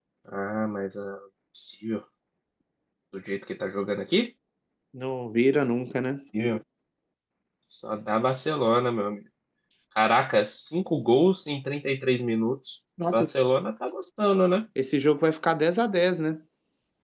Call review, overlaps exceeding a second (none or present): none